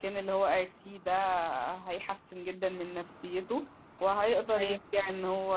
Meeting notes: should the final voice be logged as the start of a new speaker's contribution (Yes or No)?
No